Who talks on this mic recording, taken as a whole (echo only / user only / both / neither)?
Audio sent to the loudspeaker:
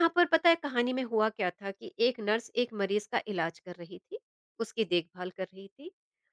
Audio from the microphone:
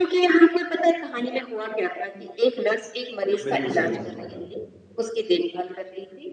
both